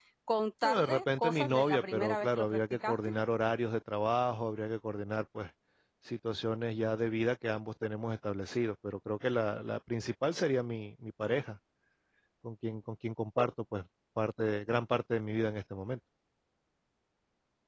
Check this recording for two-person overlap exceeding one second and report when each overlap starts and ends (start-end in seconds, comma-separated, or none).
0.6-3.0